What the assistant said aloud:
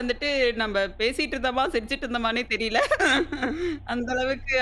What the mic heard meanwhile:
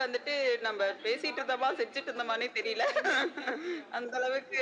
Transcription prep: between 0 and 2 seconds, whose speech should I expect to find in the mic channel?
both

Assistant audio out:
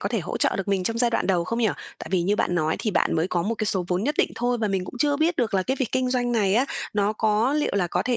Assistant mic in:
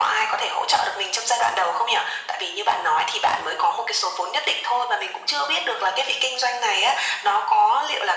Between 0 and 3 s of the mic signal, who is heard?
echo only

